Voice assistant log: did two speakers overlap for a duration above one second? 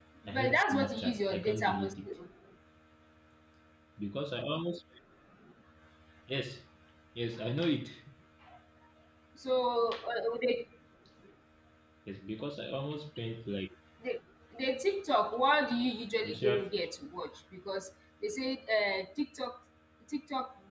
Yes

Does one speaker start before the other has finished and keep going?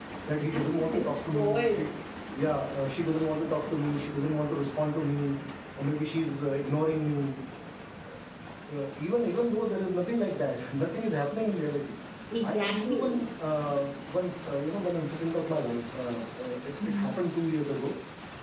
Yes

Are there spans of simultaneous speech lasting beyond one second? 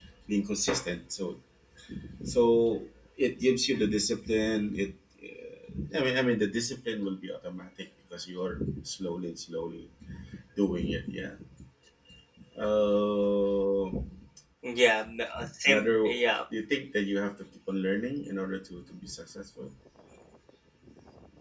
No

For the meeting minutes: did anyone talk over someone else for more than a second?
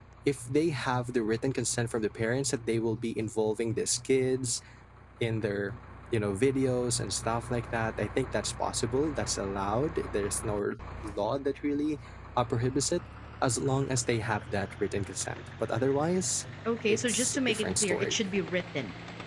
Yes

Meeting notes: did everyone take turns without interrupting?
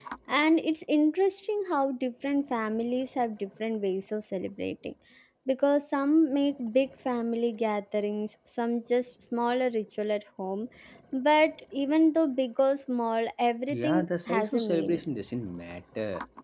No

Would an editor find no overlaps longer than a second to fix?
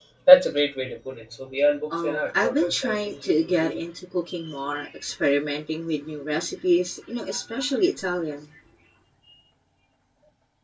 No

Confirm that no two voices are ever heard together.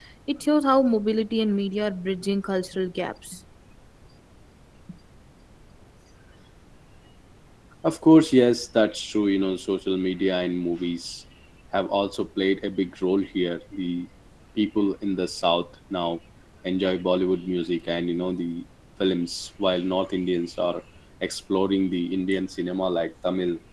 Yes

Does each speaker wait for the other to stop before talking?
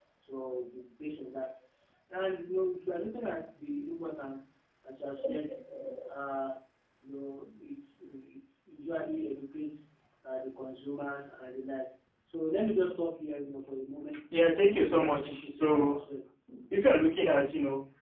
No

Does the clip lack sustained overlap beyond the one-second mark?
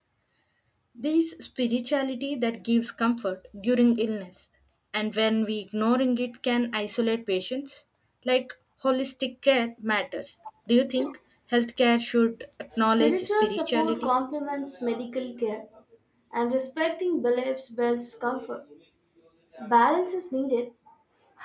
No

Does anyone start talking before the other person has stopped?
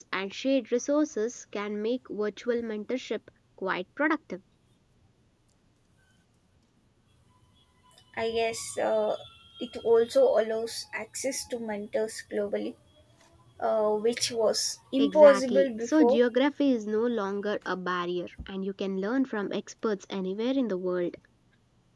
Yes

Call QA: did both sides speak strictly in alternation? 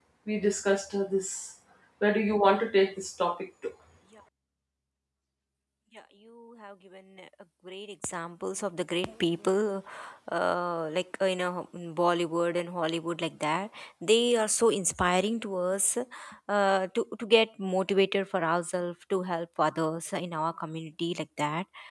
Yes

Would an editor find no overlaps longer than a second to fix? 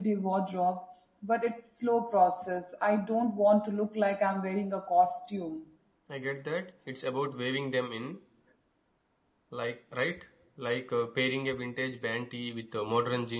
Yes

